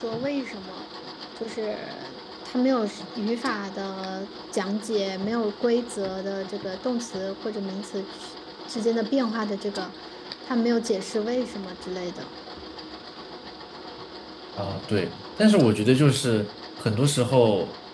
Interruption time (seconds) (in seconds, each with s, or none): none